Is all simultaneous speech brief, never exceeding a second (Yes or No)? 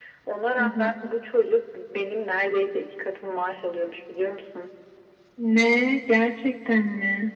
Yes